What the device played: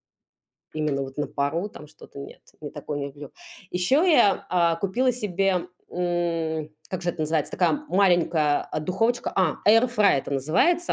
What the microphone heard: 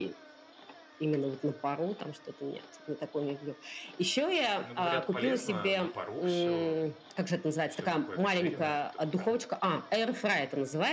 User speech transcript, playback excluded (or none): Но говорят, полезно на пару всё, всё такое обезжиренное, всё такое поле